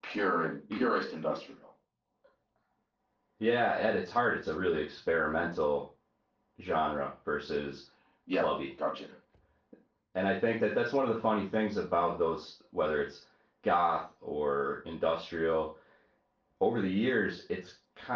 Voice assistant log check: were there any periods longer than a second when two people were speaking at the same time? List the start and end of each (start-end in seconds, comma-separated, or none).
none